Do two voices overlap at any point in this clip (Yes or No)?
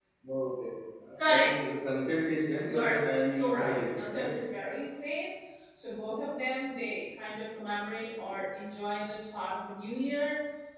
Yes